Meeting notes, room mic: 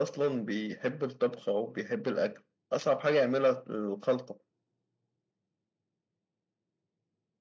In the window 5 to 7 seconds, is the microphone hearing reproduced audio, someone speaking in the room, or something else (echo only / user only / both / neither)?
neither